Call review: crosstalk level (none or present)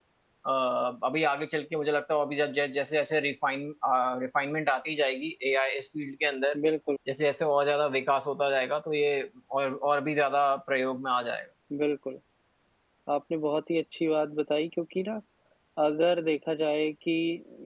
none